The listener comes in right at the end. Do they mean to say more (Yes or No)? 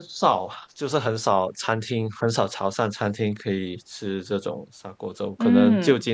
No